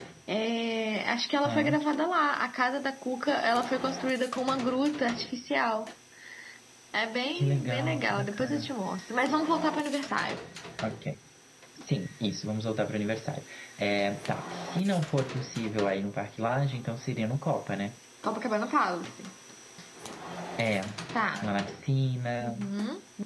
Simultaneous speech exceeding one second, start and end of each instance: 7.3-8.7

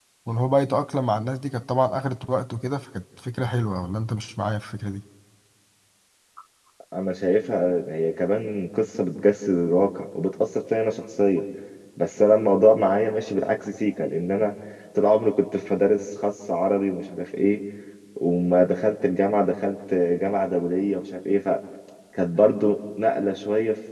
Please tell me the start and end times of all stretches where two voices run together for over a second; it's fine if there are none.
none

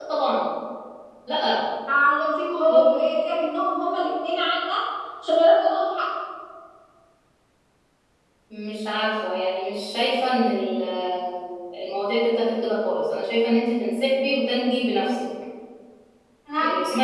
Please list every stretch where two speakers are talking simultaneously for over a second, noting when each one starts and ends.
none

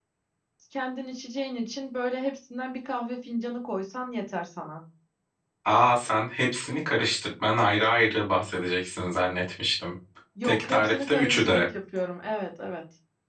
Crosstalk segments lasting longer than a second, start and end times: 10.4-11.6

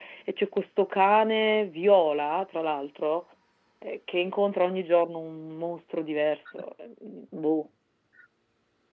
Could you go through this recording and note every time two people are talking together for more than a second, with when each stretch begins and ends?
none

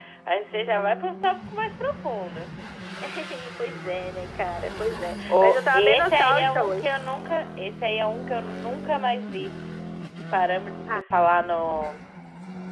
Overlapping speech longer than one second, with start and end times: 5.3-6.8

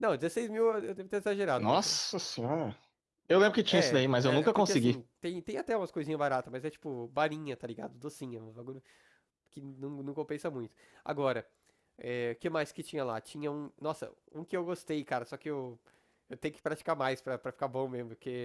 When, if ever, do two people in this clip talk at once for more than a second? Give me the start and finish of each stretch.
3.7-5.0

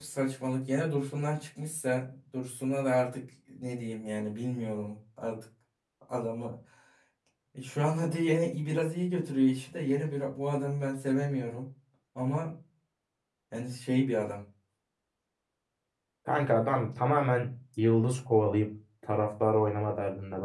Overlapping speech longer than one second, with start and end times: none

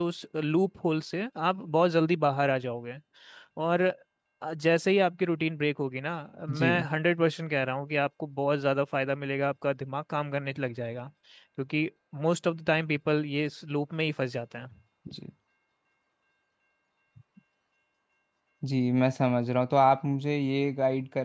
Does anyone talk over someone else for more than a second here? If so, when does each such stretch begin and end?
none

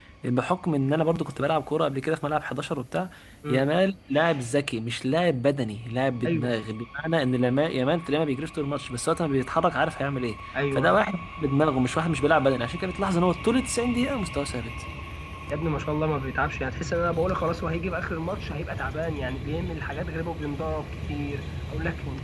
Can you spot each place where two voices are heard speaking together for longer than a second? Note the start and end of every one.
none

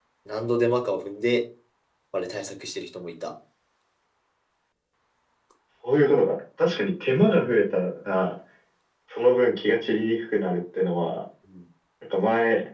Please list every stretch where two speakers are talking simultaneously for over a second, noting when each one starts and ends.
none

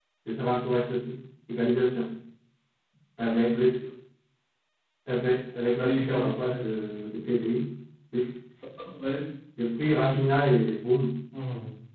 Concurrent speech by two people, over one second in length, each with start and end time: 5.8-7.0

